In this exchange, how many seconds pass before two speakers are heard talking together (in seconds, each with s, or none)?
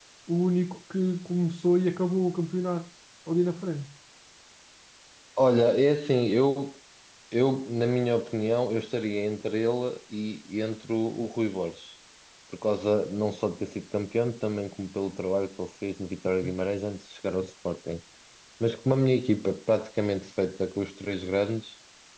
none